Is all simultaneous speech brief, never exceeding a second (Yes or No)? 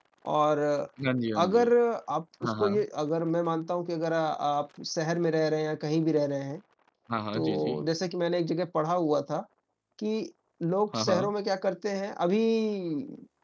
Yes